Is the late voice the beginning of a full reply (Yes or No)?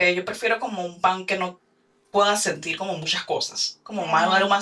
No